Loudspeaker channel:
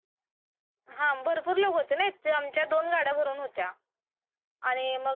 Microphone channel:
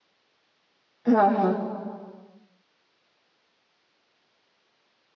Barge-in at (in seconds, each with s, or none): 1.1 s